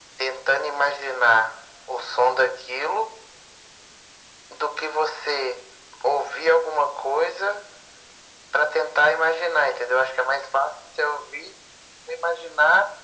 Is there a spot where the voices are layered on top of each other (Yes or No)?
No